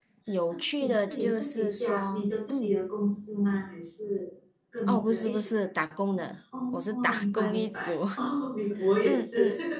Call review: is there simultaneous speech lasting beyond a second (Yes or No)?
Yes